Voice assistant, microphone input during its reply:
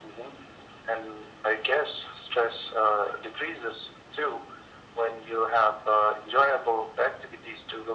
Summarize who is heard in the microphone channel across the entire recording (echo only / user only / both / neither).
echo only